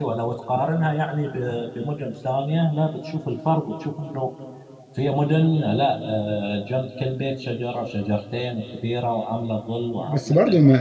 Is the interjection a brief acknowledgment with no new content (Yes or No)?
No